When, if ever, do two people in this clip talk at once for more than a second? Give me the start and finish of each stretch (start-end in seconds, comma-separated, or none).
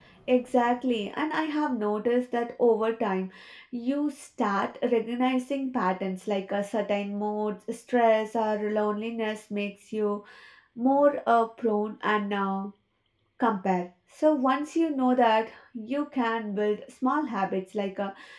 none